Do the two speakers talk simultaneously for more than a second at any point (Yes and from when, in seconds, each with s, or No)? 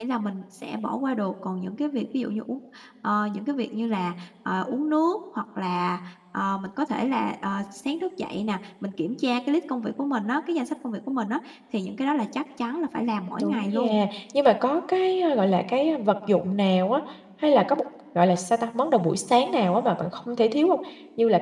No